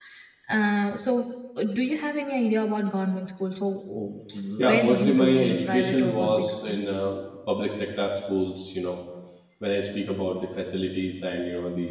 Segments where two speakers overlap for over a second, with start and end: 4.6-6.8

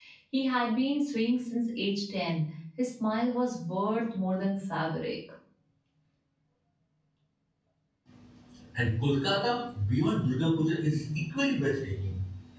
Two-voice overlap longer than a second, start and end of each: none

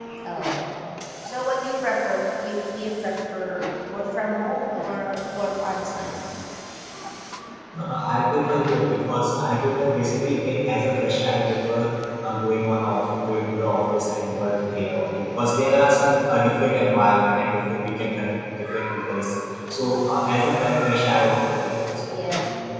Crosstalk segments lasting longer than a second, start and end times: none

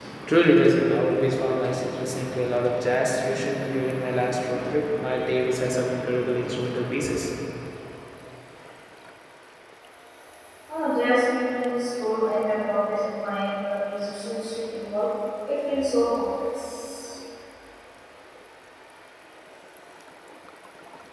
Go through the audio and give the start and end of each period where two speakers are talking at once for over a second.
none

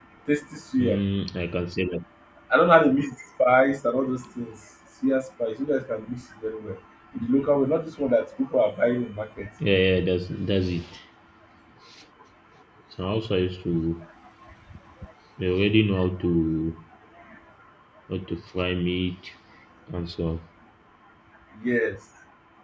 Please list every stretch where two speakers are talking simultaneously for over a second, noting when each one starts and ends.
none

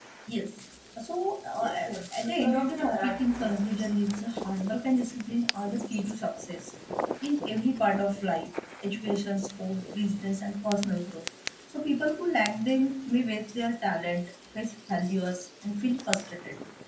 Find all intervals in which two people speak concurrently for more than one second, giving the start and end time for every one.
2.1-3.6

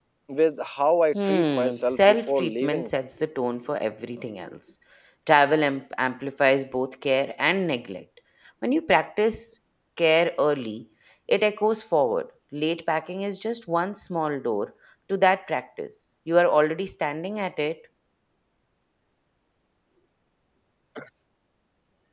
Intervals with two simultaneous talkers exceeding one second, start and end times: 1.2-2.9

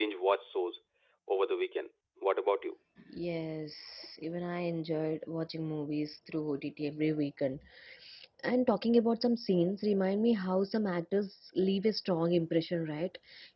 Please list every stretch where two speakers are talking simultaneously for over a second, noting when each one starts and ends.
none

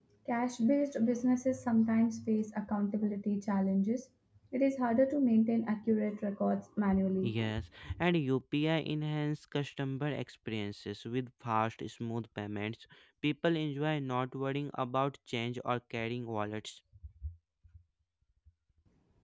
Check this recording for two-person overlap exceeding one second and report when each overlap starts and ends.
none

